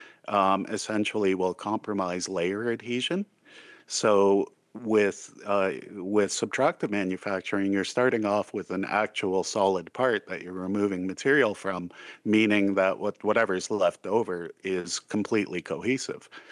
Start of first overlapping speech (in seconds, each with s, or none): none